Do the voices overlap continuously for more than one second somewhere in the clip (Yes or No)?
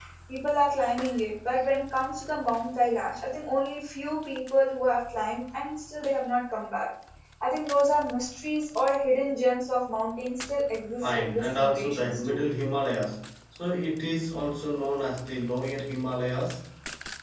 Yes